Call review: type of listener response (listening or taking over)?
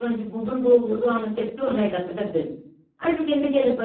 listening